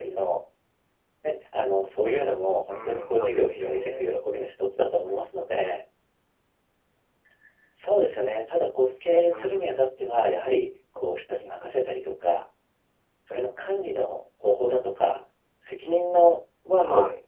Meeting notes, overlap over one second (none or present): present